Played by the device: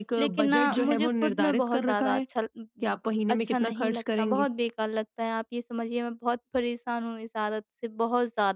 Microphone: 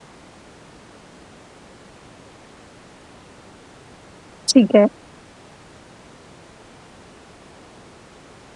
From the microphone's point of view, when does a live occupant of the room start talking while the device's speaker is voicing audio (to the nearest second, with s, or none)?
4 s